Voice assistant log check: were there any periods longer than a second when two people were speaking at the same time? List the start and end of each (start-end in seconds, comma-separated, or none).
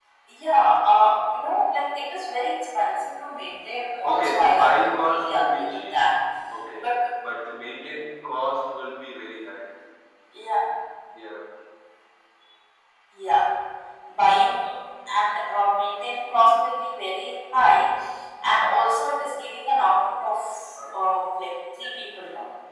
4.0-6.0